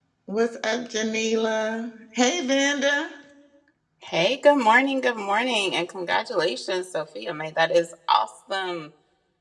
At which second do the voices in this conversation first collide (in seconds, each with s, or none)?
none